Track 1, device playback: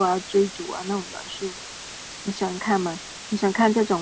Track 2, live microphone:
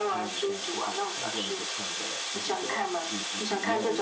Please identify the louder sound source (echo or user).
echo